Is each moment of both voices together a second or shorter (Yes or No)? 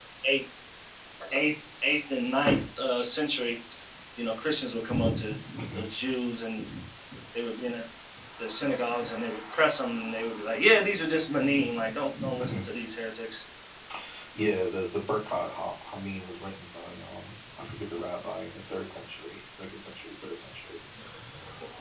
Yes